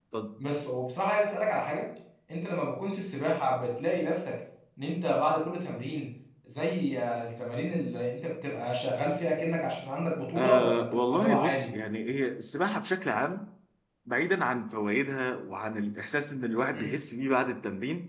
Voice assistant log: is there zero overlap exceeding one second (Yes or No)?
No